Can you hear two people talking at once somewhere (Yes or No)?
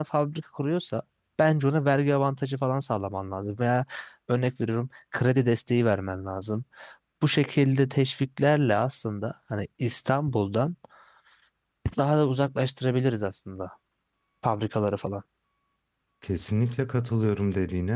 No